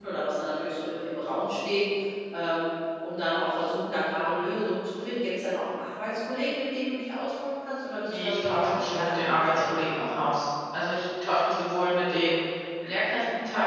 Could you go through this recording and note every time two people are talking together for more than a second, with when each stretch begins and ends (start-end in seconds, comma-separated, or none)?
8.1-9.7